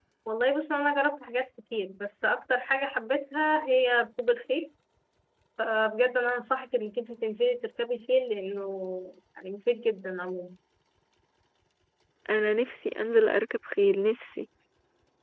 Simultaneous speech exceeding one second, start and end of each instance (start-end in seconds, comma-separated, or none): none